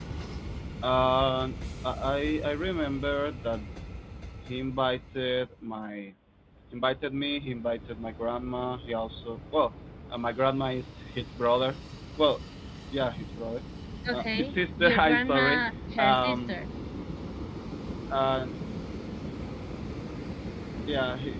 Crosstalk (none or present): present